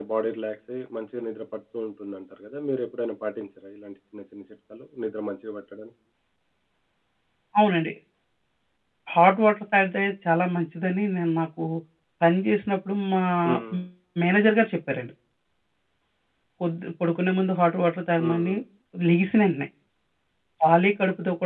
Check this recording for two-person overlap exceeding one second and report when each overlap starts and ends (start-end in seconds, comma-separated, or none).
none